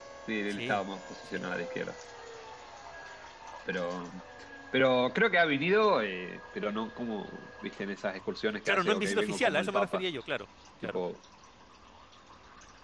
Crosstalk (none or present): present